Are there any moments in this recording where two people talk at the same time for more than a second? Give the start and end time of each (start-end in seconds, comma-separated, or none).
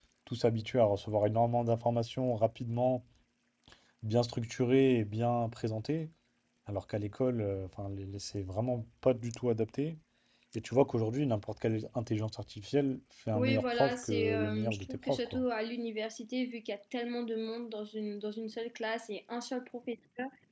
13.3-15.4